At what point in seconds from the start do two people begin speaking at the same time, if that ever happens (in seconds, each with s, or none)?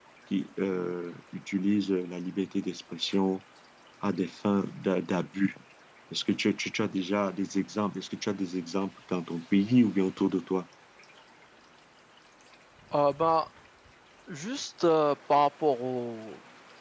none